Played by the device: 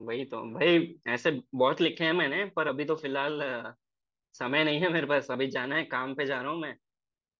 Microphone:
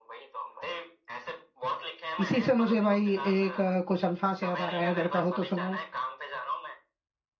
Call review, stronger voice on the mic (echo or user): user